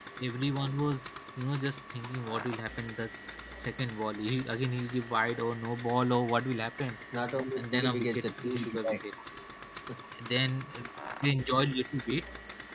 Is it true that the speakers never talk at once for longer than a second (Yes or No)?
No